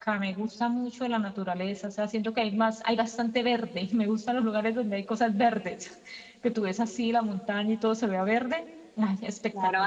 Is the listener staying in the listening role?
No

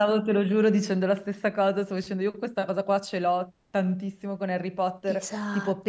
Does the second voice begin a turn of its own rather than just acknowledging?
No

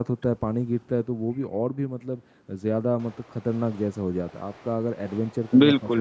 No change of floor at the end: Yes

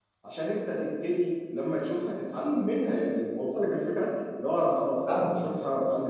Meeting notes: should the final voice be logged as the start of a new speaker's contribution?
No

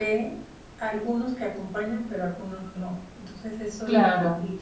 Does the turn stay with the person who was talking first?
Yes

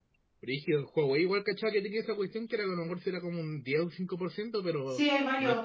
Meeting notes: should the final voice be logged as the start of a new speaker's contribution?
Yes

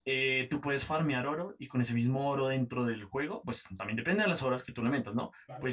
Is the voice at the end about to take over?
No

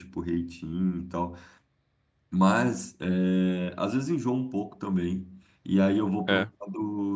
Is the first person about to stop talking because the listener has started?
No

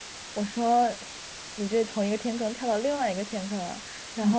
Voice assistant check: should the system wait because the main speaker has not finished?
Yes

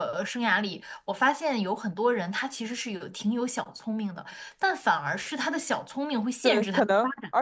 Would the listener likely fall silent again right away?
No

